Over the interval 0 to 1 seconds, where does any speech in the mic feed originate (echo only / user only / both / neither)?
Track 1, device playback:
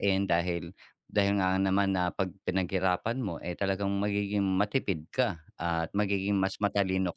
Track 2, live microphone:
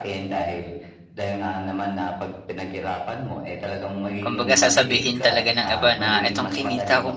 echo only